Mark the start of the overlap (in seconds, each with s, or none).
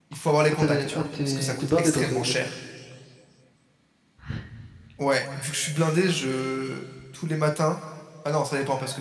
0.5 s